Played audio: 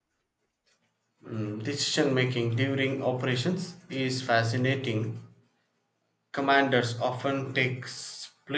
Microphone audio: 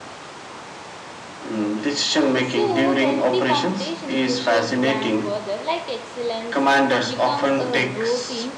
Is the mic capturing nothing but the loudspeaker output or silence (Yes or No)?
No